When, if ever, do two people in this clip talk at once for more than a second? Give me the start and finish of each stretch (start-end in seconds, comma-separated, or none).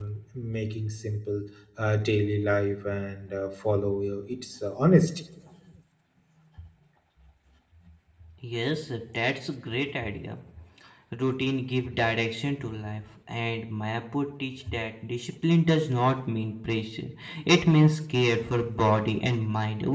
none